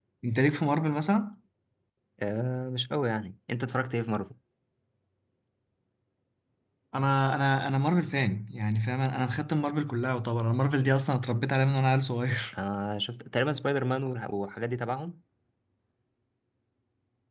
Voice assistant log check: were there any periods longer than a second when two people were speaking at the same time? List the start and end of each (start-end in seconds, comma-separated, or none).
none